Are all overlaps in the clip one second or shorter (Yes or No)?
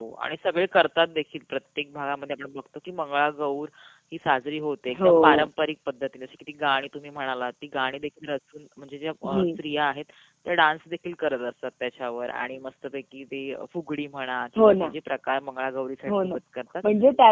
Yes